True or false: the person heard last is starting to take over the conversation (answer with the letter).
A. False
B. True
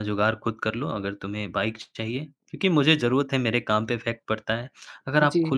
A